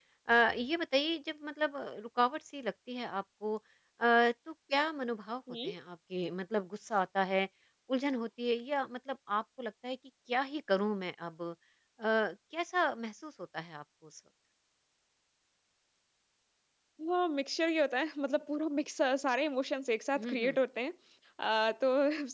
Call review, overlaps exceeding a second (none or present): none